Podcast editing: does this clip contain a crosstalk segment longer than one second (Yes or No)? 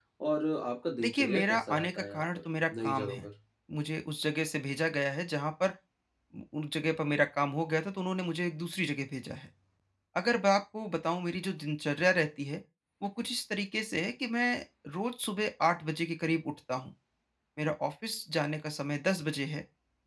Yes